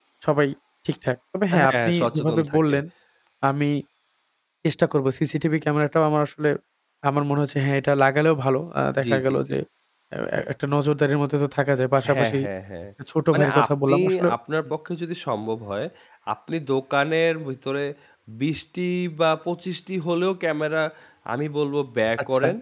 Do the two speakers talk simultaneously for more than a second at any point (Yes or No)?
Yes